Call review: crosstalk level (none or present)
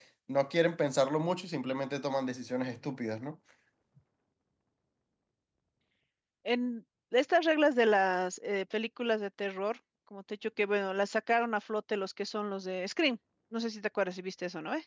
none